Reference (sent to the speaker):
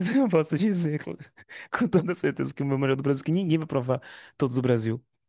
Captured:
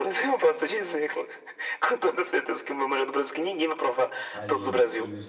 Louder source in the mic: echo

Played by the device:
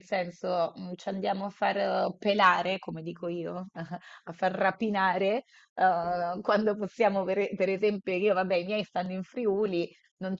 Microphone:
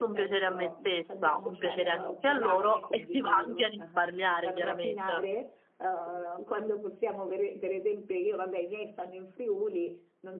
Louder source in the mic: user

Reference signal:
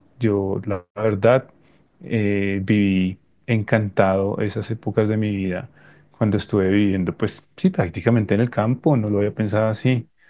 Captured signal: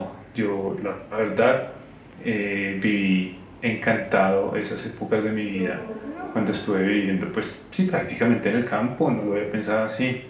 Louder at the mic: echo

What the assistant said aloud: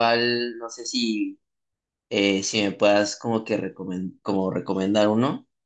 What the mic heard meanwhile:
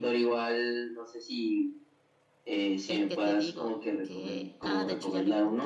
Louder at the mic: echo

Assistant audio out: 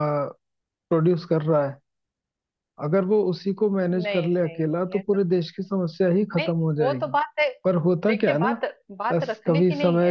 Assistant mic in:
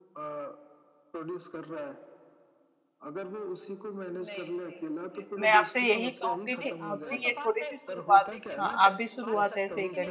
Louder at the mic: user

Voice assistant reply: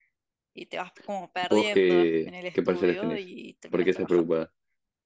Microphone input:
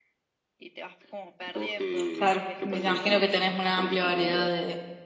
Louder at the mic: user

